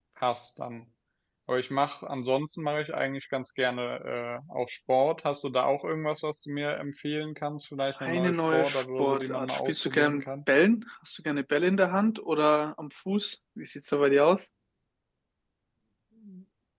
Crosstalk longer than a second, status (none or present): present